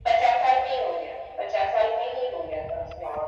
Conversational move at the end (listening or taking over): taking over